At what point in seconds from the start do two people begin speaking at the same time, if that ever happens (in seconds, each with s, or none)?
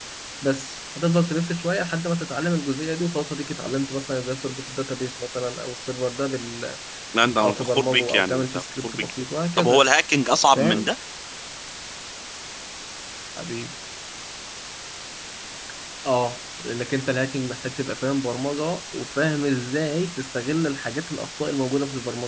7.4 s